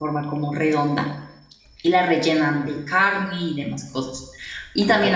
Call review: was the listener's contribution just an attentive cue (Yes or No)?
Yes